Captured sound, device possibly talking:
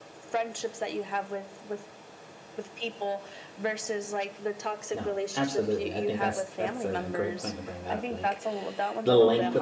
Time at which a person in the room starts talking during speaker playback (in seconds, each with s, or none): 4.9 s